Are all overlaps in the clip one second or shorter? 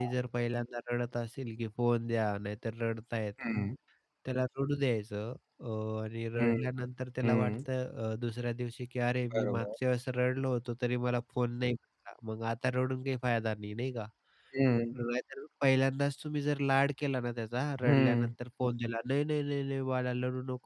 Yes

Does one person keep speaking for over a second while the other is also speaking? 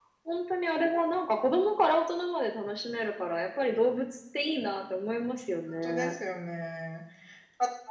No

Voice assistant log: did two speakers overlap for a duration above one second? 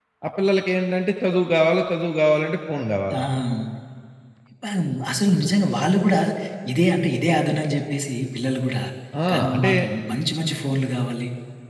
No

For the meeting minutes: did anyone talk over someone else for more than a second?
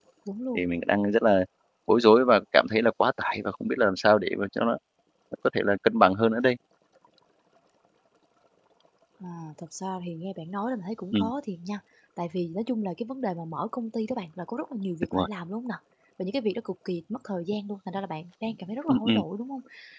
No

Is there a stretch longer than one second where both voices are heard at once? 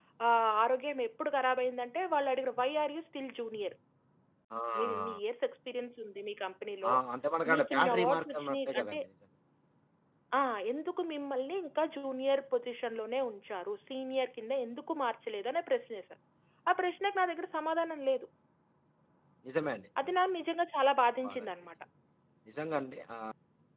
Yes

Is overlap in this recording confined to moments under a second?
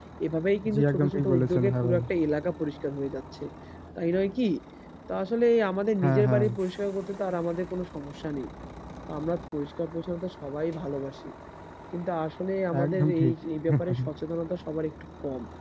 No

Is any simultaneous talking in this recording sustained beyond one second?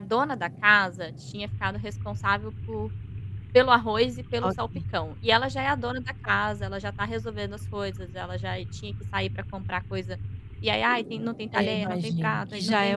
Yes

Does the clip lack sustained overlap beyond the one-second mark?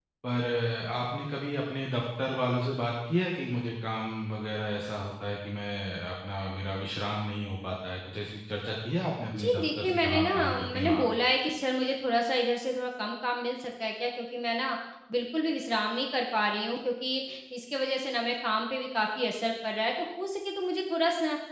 No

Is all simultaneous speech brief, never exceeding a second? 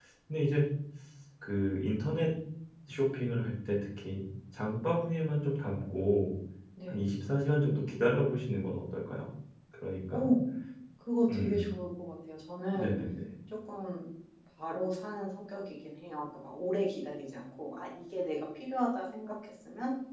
Yes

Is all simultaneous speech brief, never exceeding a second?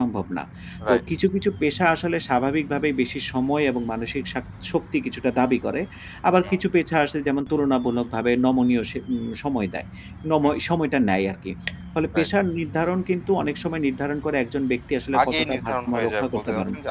No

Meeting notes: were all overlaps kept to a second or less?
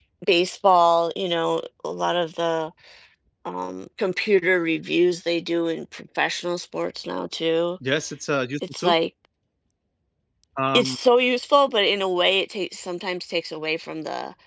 Yes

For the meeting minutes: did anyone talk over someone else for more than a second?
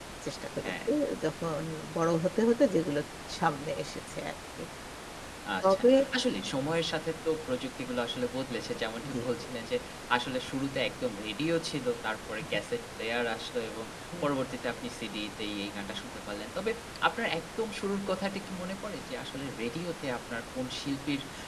No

